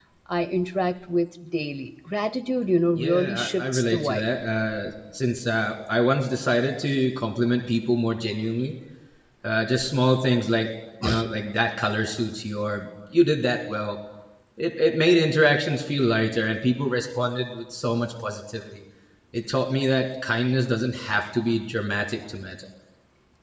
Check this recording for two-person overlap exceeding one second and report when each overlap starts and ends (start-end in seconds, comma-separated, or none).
3.0-4.3